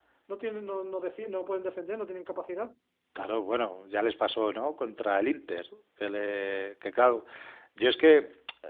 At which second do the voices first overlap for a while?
none

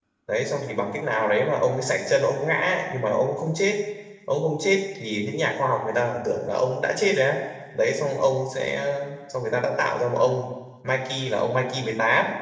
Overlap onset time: none

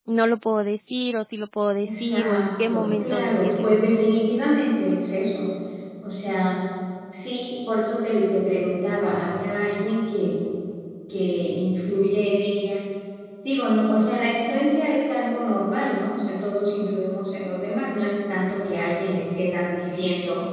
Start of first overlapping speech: 1.8 s

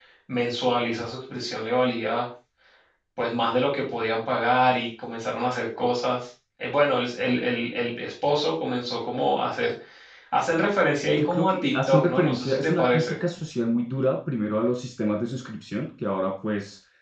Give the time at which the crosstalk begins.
11.2 s

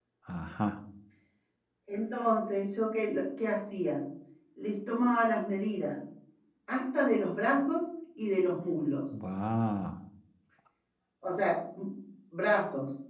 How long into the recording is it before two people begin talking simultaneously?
none

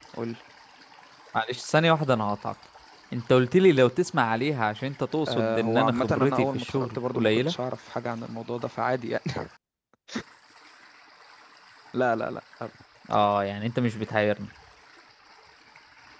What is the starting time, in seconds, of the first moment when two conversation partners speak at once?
5.3 s

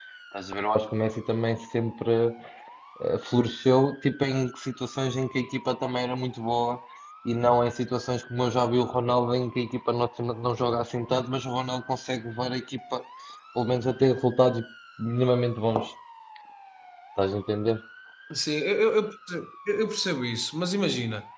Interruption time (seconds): none

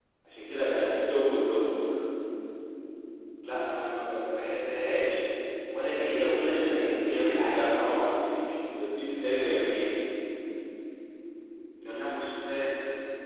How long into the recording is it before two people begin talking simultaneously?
5.9 s

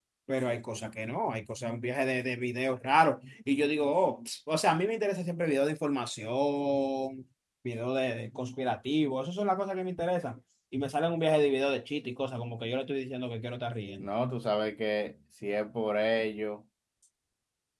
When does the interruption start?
none

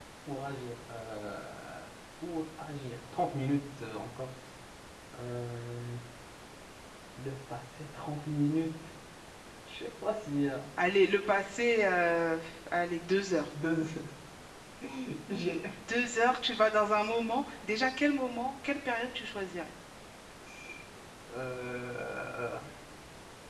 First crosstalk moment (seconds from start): none

